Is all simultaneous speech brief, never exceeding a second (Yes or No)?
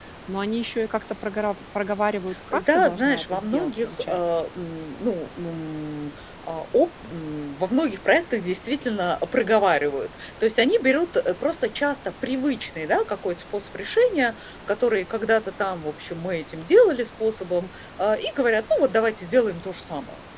No